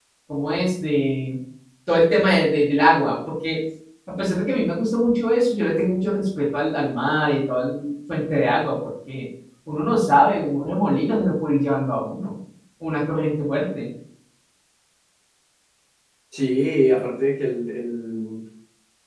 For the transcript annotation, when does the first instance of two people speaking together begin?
none

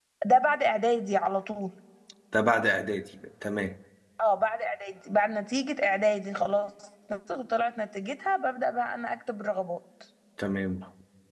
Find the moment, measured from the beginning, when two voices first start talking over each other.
none

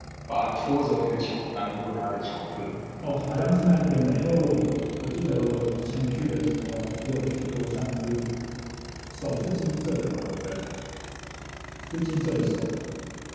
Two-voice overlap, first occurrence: none

